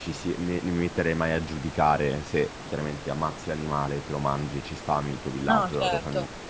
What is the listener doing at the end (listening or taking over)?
listening